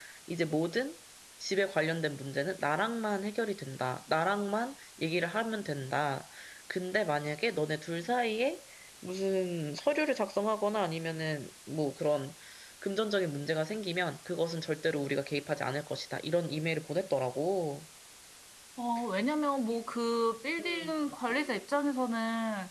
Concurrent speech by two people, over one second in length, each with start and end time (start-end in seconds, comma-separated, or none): none